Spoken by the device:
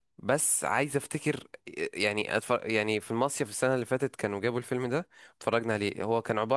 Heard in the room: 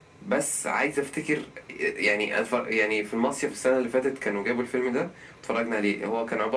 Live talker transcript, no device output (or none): none